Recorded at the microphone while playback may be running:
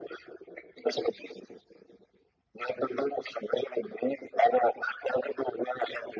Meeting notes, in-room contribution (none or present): none